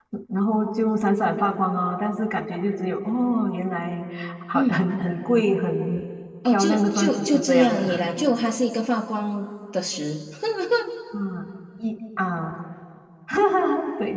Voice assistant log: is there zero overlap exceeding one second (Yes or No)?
No